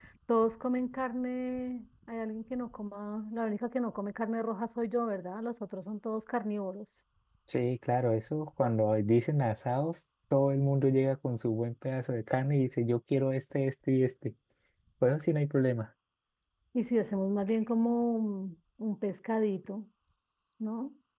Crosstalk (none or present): none